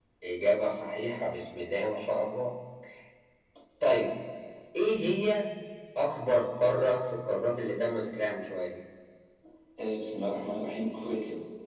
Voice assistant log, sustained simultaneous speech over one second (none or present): none